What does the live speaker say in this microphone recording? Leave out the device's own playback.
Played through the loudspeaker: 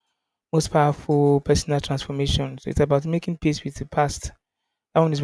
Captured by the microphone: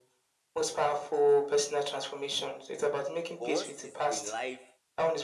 But once it's a life,

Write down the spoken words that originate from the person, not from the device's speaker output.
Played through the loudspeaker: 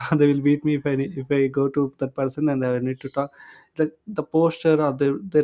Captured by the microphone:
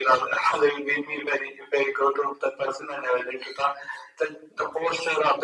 none

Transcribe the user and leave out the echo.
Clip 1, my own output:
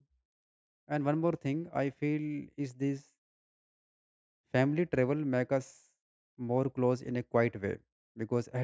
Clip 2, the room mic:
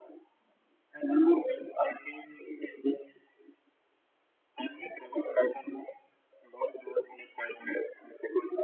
none

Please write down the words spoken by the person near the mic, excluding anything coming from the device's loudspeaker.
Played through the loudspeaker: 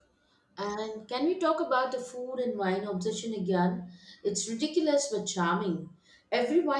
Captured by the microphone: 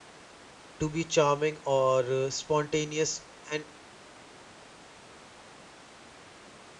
to be charming or uh, spontaneous and

